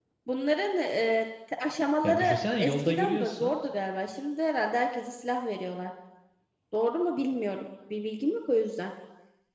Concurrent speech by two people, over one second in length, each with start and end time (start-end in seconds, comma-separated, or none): 2.0-3.6